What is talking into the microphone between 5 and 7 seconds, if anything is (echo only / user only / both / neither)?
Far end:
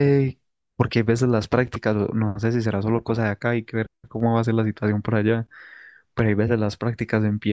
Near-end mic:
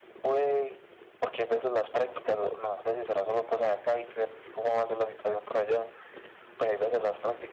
echo only